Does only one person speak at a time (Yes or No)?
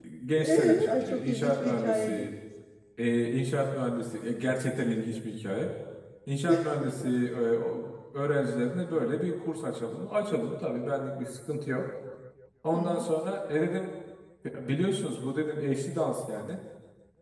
No